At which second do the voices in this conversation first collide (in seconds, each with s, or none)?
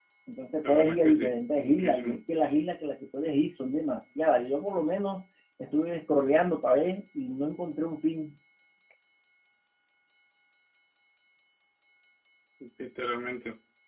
0.6 s